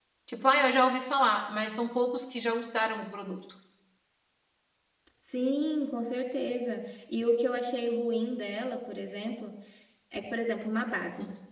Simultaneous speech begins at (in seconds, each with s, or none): none